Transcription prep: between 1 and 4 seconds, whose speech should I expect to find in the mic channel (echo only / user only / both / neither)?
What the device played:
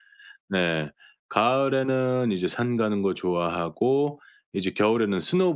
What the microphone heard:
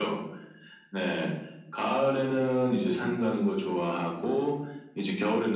echo only